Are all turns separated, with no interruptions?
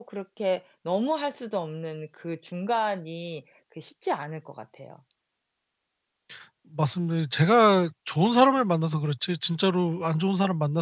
Yes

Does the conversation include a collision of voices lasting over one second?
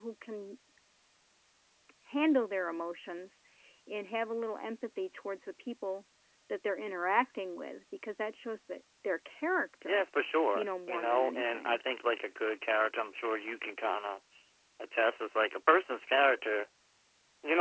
Yes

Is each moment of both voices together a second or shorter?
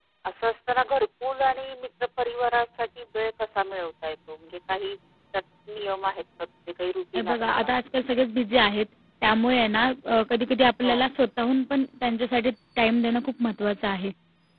Yes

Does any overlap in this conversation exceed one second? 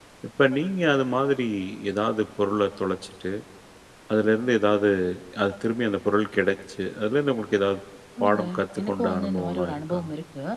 Yes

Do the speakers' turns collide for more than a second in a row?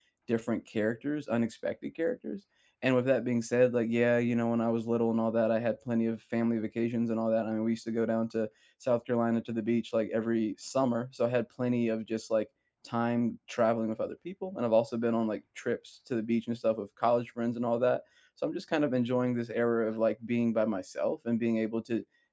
No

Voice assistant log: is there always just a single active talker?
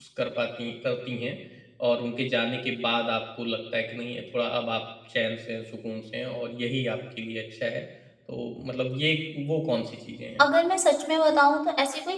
Yes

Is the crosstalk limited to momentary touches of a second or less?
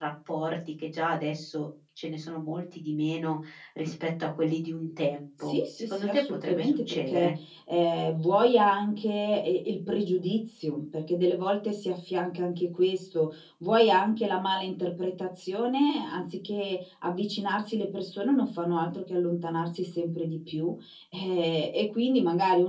No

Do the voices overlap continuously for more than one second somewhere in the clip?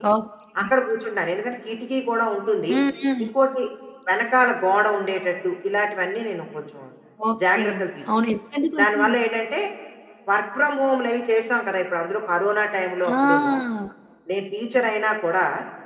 No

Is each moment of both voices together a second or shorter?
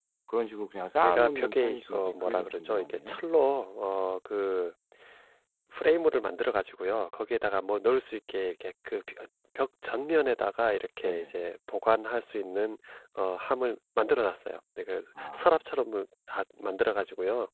No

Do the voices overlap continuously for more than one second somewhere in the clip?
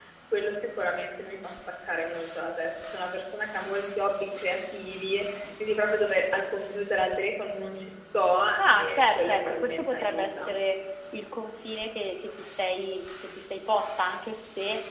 Yes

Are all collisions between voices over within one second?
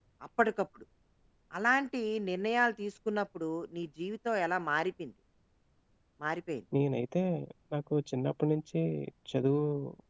Yes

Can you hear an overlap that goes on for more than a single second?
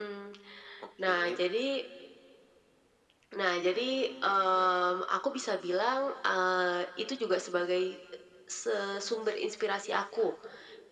Yes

